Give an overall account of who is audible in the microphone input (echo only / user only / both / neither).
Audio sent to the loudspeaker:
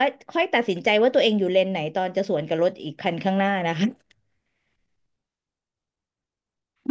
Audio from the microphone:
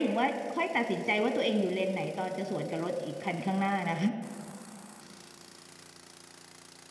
echo only